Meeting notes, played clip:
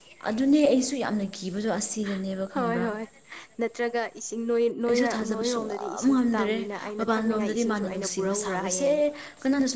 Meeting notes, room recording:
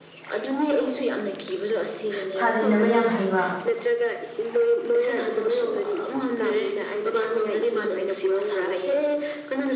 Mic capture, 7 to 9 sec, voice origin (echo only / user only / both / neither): echo only